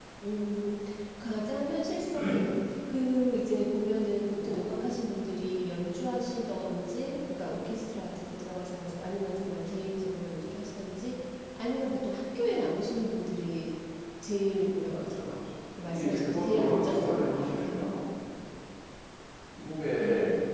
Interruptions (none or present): present